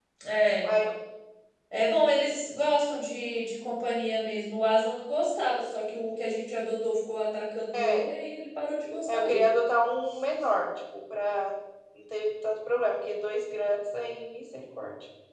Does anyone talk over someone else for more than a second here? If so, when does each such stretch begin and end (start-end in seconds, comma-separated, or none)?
none